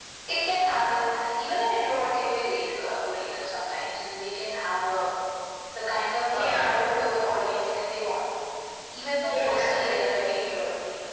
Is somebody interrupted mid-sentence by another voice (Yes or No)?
Yes